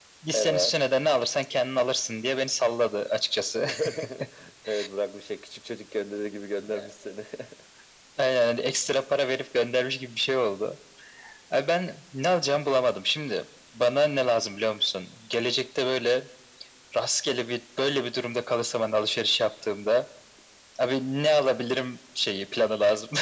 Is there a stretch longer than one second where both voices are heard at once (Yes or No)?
No